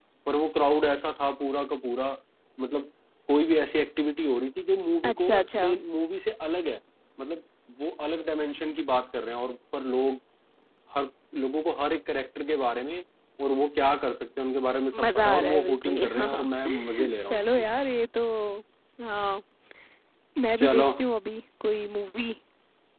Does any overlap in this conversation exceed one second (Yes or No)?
Yes